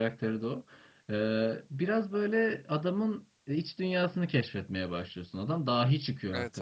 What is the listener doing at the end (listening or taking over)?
taking over